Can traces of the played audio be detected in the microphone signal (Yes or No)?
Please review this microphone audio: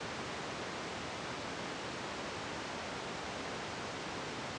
No